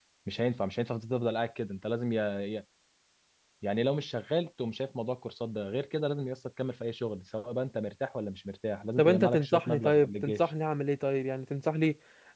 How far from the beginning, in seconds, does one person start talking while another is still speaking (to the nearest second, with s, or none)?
9 s